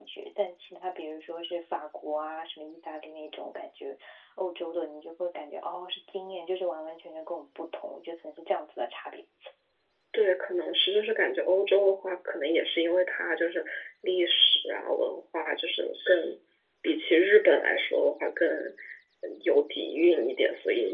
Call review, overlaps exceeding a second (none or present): none